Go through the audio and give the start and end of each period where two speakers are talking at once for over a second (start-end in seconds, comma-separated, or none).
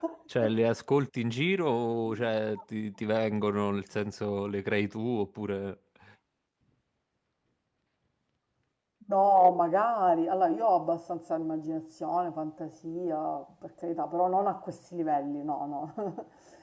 none